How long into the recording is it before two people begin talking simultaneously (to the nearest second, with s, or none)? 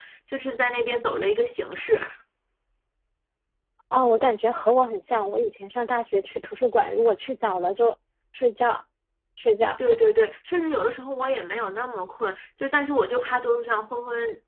none